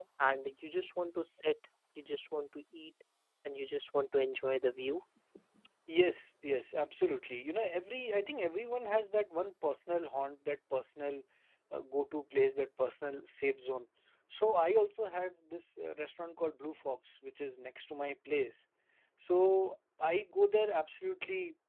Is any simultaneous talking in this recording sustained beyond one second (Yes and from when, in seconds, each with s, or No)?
No